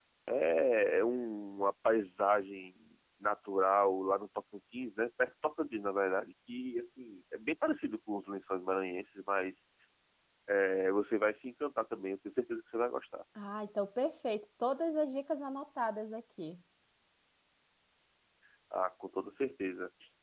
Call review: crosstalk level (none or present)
none